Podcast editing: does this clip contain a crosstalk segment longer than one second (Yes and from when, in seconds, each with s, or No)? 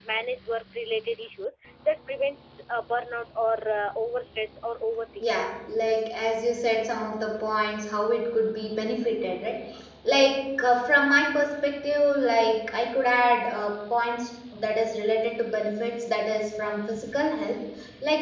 No